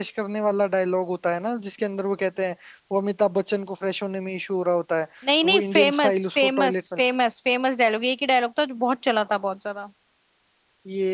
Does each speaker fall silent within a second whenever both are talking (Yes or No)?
No